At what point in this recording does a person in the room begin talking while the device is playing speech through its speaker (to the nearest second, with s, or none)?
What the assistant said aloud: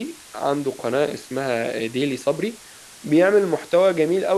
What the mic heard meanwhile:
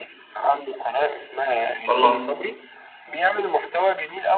2 s